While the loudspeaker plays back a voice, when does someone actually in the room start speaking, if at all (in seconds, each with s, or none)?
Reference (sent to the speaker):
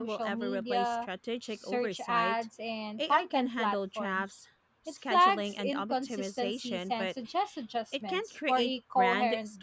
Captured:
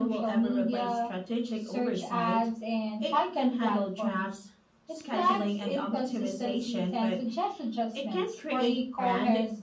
none